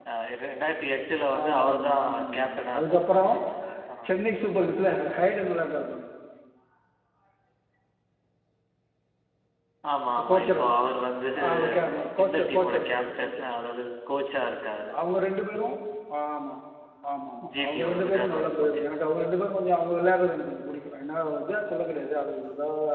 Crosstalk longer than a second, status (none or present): present